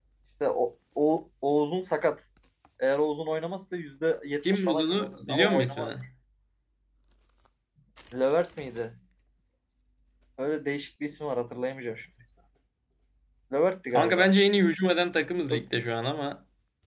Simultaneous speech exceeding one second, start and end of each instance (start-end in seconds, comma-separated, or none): 4.5-5.9